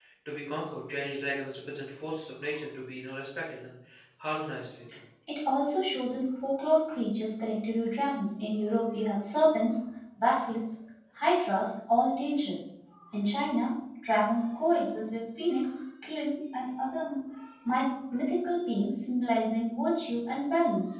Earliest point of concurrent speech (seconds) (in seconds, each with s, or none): none